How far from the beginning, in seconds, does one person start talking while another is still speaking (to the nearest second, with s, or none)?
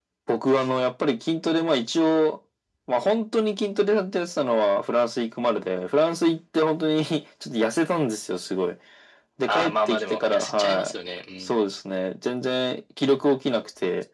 9 s